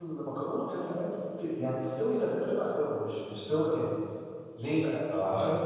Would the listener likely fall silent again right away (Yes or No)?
Yes